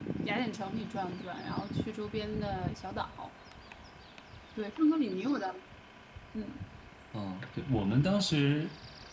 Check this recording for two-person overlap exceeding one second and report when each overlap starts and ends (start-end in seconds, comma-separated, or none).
none